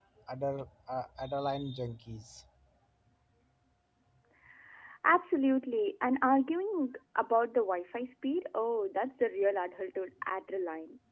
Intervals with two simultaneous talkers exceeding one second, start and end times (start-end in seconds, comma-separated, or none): none